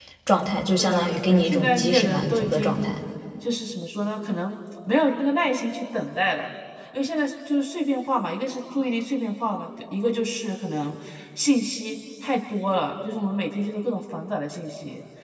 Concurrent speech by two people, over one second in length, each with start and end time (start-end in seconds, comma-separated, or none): 0.8-2.9